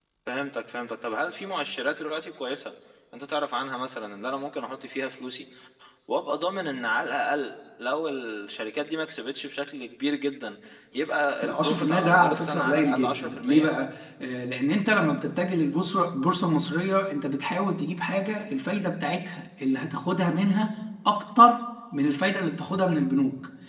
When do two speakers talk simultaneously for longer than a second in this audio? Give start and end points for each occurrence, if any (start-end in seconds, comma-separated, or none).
11.4-13.7